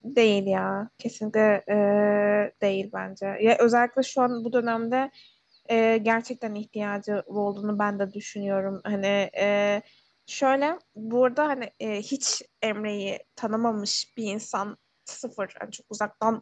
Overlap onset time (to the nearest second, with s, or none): none